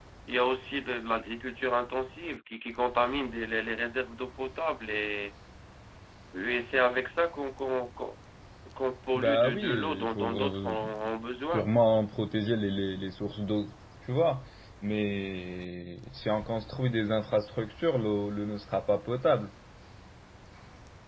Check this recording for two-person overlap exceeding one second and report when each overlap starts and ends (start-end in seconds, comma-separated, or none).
9.1-10.7